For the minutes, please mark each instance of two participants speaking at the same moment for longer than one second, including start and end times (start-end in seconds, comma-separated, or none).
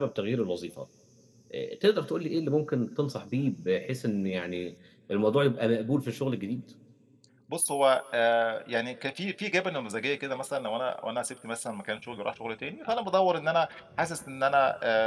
none